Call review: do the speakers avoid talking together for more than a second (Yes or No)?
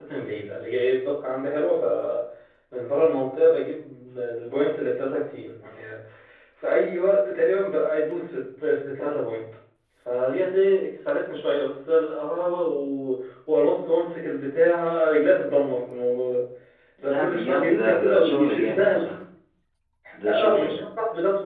No